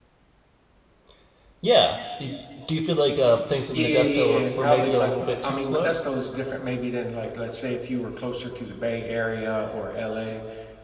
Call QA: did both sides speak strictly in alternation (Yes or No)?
No